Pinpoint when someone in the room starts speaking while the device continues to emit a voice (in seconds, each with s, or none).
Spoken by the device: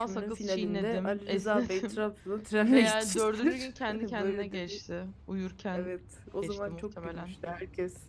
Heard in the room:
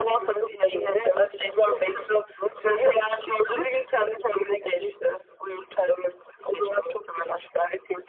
none